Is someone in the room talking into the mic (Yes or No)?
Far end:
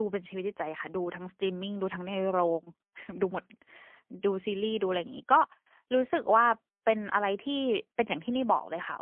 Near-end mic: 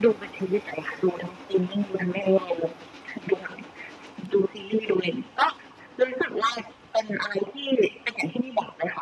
No